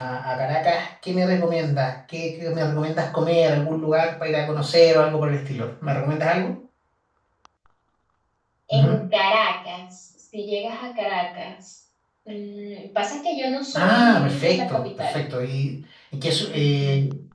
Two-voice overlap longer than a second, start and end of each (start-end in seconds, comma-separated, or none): 13.7-15.2